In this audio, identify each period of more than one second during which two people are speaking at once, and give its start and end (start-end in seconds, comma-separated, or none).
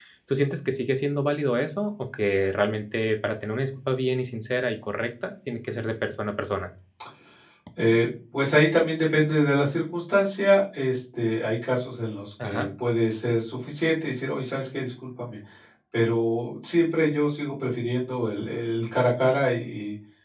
none